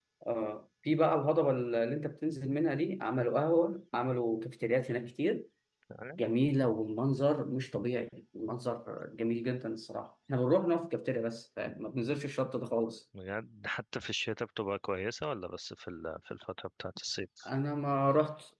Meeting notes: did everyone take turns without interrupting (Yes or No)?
Yes